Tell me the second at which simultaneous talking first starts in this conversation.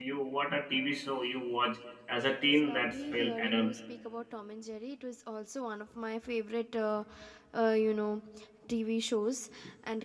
2 s

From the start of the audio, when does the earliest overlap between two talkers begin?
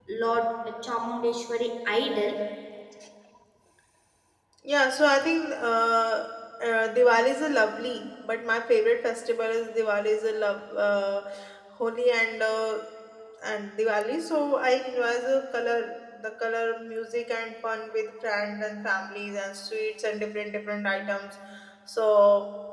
none

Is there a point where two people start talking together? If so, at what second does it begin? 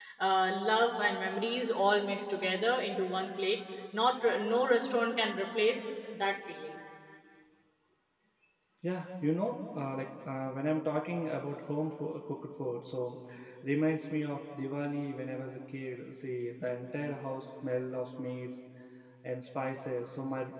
none

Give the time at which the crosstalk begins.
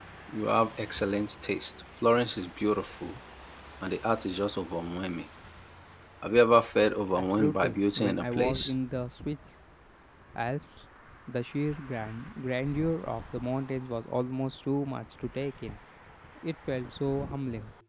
7 s

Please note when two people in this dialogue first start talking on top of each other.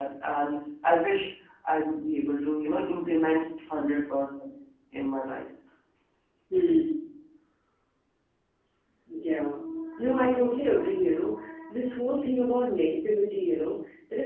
none

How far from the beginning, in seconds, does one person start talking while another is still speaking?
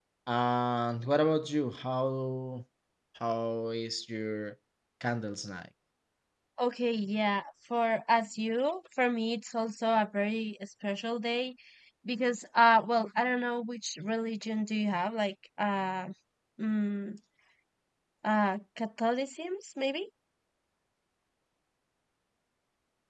none

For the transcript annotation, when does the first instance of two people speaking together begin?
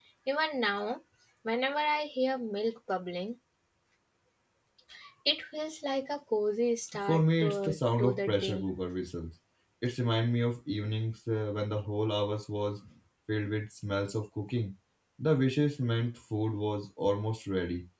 7 s

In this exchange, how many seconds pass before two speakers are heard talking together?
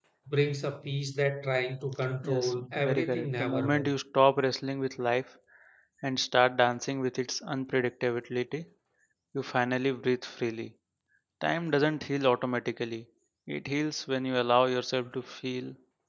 2 s

